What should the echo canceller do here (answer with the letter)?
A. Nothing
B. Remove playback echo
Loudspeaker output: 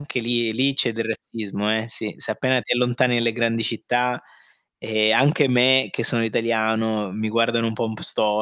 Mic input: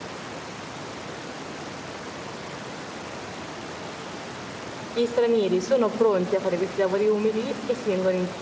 A